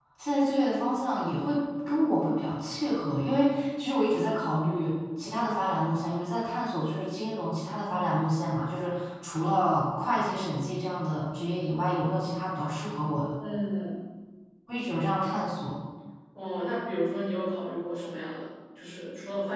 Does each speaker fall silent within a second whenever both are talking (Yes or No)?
Yes